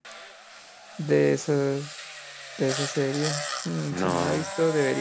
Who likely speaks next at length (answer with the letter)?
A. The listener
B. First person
B